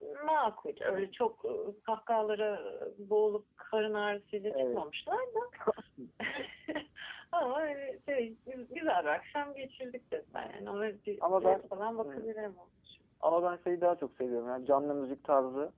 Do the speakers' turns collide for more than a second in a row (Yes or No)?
No